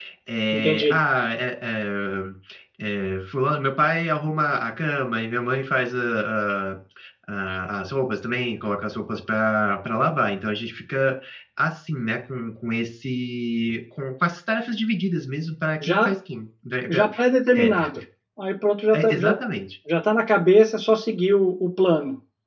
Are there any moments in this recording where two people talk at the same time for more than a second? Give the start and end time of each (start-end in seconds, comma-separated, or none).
none